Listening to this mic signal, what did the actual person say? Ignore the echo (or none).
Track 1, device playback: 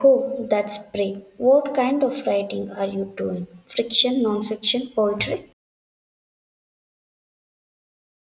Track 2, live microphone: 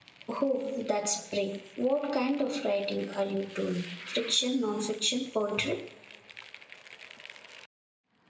none